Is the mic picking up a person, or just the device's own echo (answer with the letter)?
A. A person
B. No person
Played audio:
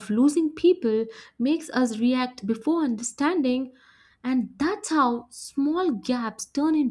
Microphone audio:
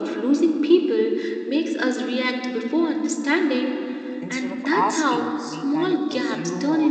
A